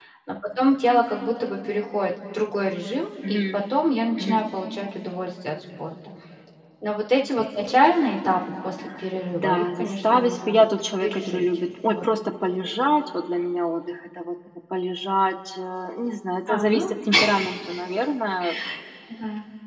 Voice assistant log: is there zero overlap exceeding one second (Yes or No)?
No